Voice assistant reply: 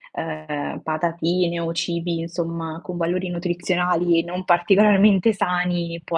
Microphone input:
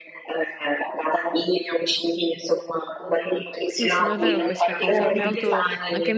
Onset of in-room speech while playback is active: 3.7 s

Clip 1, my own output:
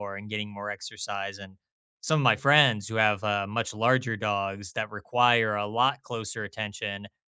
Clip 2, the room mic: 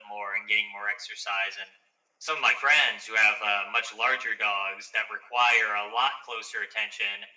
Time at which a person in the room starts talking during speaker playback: none

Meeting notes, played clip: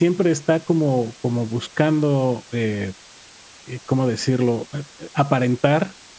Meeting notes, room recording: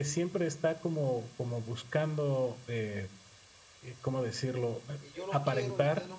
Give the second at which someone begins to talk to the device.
5.0 s

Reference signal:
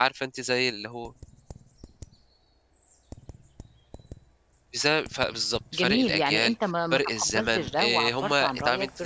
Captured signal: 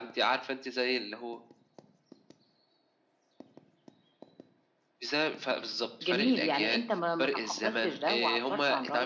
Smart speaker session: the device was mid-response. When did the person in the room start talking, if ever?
none

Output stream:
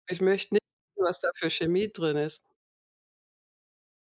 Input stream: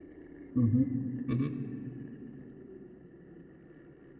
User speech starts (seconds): 0.5 s

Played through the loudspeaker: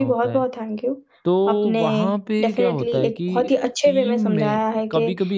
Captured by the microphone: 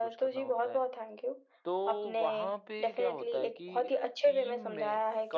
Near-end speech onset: none

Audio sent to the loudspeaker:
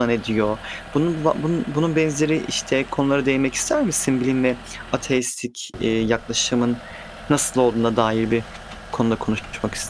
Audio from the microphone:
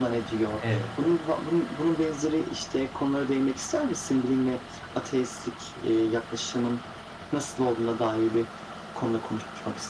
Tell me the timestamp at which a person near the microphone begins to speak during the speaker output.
0.6 s

